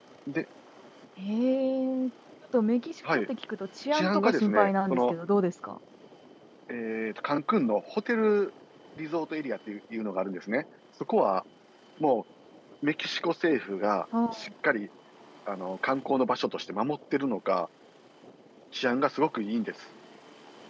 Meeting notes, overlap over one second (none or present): present